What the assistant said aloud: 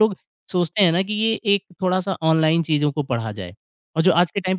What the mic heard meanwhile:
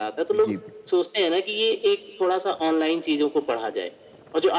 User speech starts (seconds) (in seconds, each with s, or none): 0.3 s